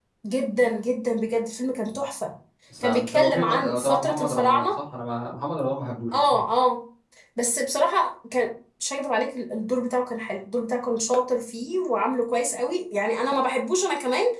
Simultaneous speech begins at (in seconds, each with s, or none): 2.8 s